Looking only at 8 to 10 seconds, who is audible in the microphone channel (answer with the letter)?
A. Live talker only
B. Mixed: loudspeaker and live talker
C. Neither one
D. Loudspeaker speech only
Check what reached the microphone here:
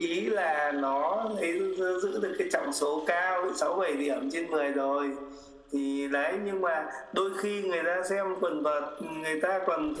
D